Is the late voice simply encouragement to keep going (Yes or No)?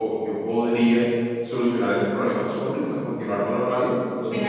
No